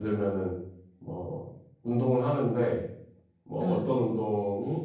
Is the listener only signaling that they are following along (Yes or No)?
Yes